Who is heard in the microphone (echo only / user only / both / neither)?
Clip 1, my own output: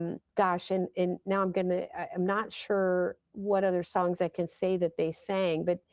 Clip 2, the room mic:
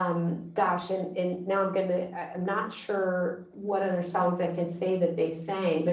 echo only